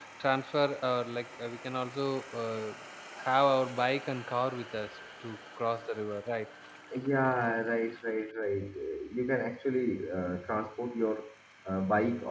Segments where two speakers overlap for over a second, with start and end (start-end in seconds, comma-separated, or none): none